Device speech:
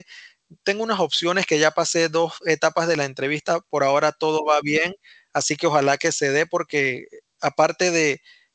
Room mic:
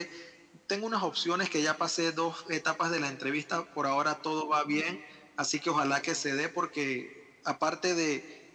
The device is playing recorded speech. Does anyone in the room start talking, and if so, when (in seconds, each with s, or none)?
none